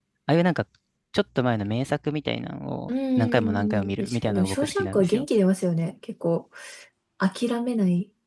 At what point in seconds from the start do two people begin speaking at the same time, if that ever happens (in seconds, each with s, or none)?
3.2 s